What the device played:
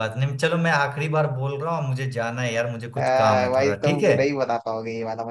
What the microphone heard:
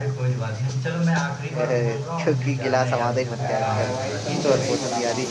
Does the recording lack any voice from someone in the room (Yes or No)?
No